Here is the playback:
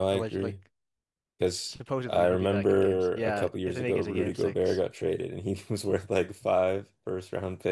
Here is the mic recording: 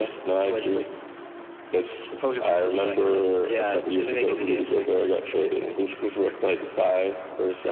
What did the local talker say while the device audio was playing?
none

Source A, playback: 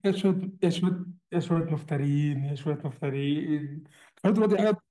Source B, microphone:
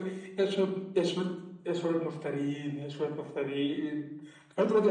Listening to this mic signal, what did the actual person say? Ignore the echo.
none

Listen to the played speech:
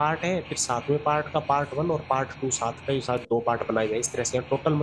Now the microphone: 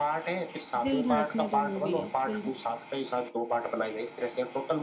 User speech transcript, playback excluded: दिल धड़कने दो मूवी है दिल

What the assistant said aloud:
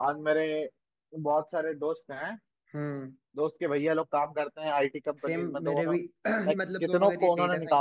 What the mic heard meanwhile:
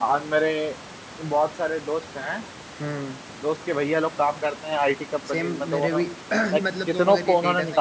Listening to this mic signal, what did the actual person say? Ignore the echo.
none

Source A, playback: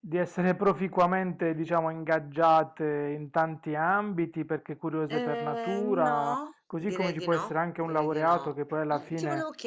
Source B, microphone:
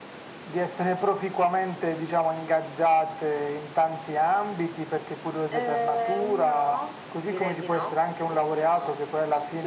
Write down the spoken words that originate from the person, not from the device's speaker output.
none

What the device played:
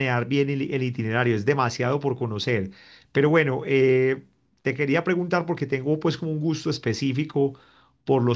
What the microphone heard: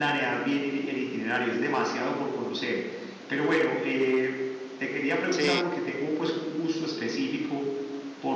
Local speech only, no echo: Sí,

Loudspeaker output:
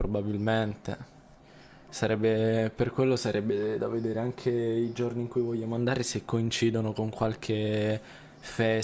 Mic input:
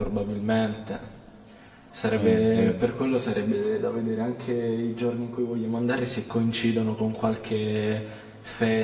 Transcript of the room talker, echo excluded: Eh, vero.

